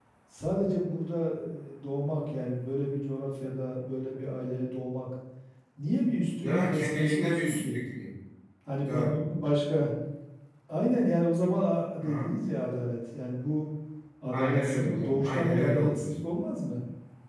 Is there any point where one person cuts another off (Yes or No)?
Yes